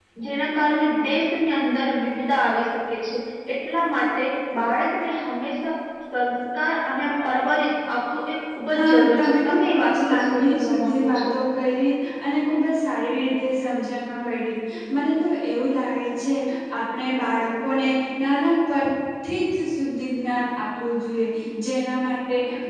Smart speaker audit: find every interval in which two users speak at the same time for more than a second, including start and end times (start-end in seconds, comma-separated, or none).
8.8-11.2